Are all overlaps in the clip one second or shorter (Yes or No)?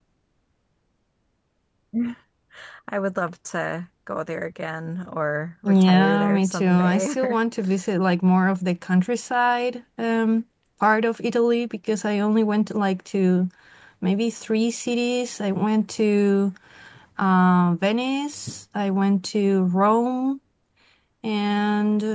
No